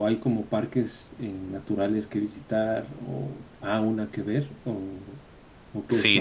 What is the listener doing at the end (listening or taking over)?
taking over